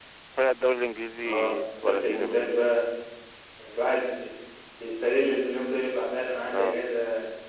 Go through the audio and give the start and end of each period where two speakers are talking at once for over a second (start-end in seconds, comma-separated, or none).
1.2-2.7